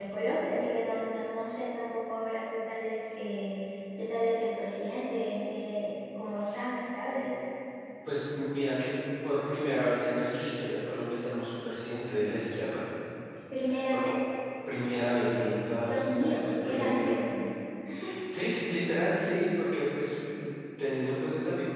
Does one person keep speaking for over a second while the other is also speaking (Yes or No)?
Yes